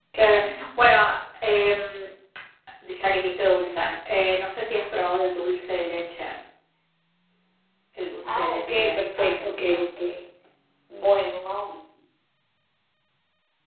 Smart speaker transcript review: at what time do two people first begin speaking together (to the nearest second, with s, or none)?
8 s